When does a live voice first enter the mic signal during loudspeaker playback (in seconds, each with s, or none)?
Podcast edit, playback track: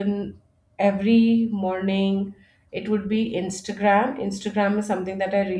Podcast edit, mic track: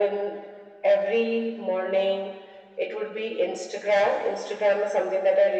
none